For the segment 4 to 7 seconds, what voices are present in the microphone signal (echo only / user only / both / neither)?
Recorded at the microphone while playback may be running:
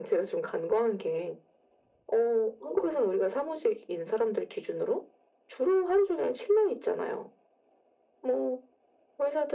echo only